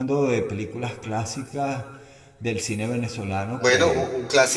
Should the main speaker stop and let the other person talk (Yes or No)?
Yes